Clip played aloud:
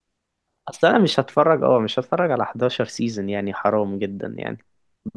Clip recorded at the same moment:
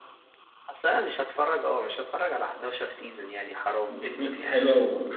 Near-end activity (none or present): present